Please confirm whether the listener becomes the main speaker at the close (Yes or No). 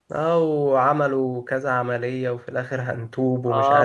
Yes